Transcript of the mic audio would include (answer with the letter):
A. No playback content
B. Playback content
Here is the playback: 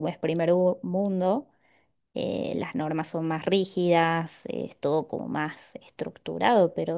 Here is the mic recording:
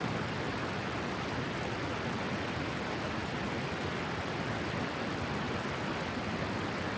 A